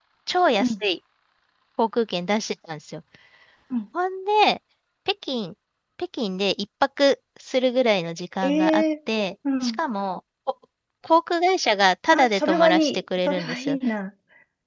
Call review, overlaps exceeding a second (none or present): present